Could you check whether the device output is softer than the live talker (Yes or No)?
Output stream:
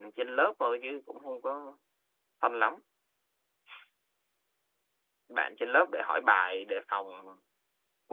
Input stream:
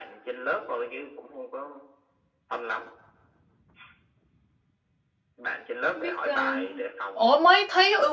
Yes